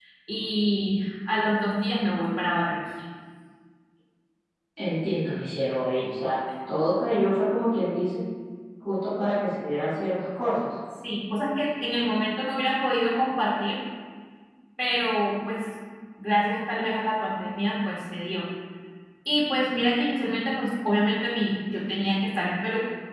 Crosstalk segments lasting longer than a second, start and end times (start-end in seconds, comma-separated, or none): none